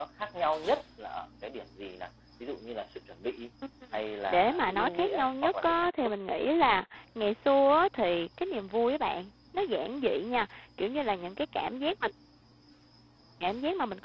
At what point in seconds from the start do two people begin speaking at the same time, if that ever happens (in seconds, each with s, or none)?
4.3 s